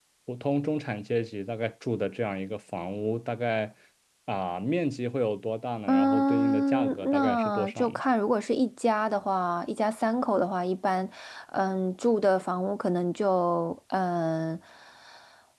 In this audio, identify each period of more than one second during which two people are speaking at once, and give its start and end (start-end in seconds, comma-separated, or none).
5.9-8.0